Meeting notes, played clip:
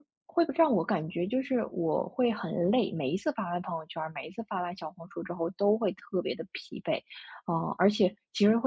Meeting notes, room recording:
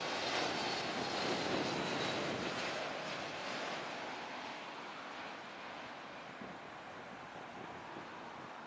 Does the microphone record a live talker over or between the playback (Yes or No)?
No